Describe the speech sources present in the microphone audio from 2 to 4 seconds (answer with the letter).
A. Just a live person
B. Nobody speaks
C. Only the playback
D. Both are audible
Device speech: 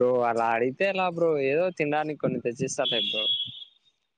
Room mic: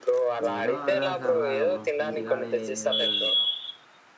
D